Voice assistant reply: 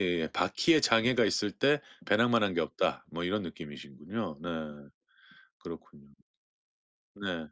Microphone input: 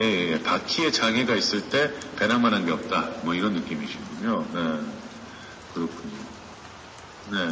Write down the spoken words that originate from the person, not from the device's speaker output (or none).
none